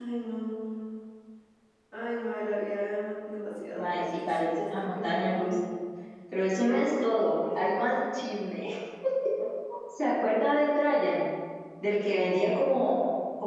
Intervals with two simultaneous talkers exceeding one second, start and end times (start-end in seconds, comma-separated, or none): 3.8-5.7